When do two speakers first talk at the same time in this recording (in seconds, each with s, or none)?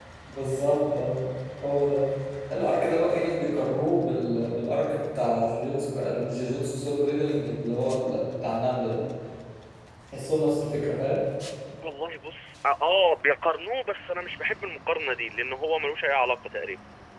none